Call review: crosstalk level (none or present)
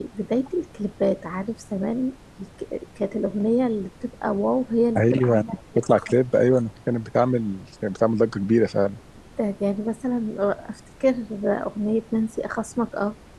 present